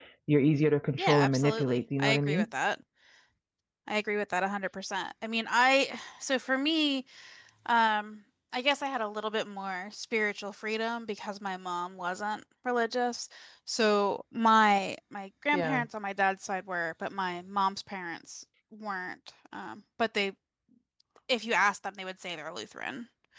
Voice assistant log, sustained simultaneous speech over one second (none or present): present